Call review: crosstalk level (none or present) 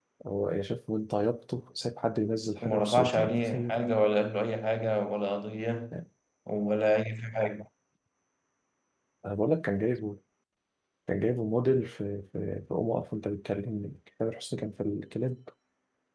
present